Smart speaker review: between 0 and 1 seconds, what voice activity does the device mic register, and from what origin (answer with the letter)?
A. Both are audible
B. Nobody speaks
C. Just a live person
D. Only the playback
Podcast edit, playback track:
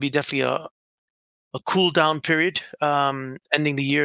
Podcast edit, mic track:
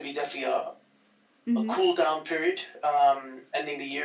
D